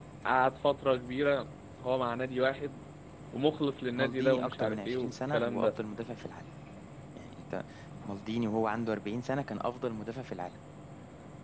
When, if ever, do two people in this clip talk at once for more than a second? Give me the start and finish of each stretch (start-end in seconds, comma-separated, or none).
4.0-5.7